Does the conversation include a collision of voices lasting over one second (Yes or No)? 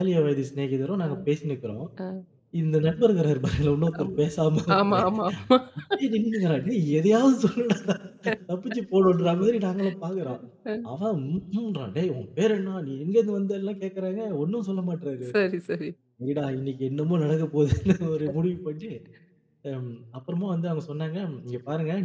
No